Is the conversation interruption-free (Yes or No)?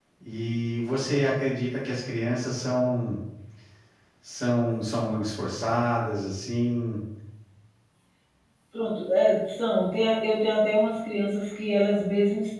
Yes